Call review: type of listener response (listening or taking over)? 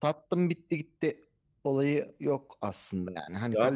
taking over